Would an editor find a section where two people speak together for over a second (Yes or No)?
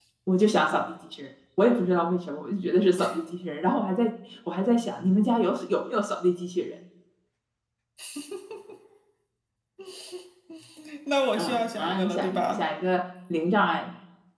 Yes